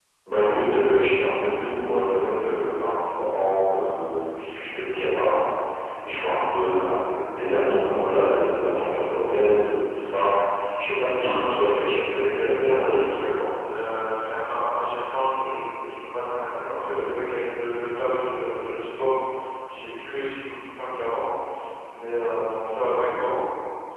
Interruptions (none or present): present